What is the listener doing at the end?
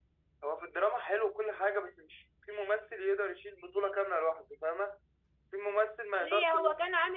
taking over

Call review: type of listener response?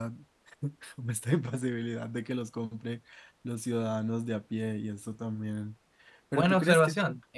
taking over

